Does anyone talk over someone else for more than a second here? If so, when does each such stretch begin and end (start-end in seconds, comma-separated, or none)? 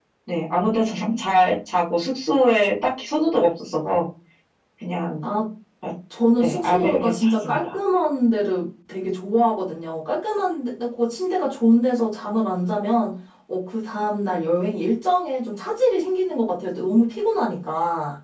6.4-7.8